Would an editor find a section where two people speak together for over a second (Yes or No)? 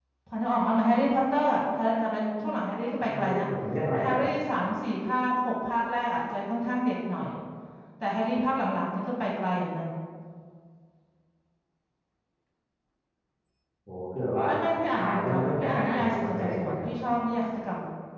Yes